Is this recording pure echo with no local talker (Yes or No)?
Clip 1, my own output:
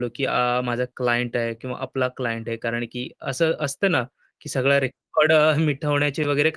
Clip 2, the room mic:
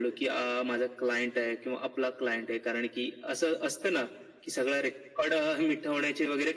Yes